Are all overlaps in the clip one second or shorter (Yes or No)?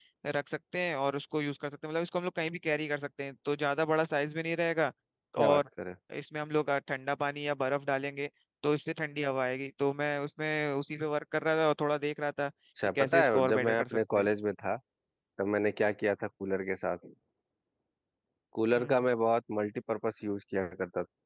No